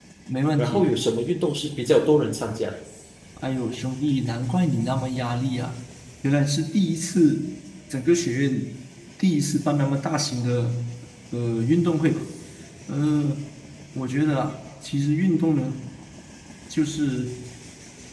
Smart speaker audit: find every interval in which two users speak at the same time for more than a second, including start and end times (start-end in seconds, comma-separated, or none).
none